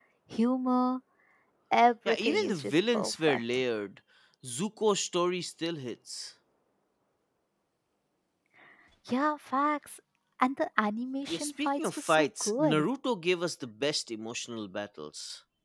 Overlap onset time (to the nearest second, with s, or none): 2 s